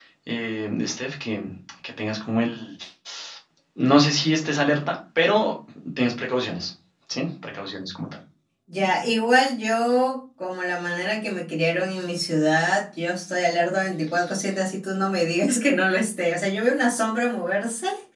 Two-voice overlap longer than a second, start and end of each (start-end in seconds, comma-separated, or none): none